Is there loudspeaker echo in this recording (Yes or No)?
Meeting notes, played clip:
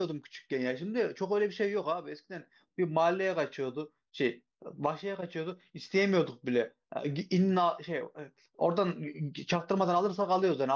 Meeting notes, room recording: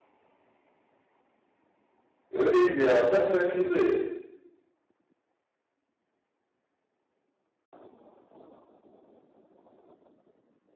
No